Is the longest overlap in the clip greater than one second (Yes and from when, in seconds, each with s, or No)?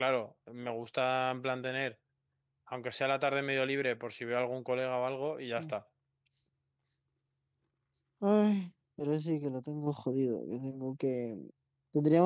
No